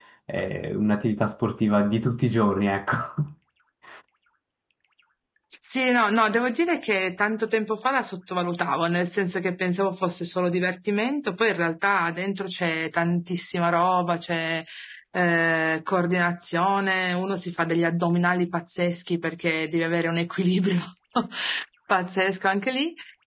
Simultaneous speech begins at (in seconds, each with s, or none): none